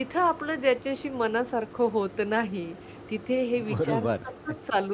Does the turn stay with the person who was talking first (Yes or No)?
Yes